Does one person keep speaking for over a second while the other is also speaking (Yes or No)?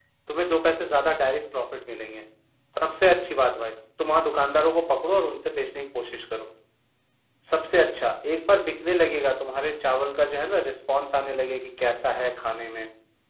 No